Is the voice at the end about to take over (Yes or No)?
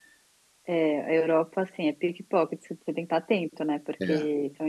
No